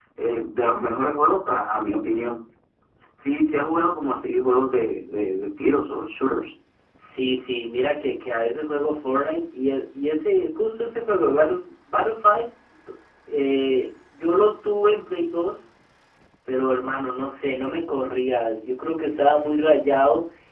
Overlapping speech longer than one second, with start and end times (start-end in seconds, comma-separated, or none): none